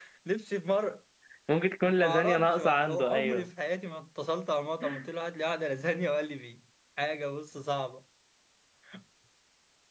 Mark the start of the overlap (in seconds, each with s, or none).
1.9 s